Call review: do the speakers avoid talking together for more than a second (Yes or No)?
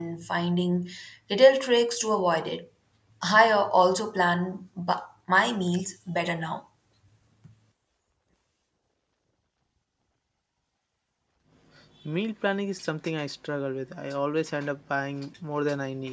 Yes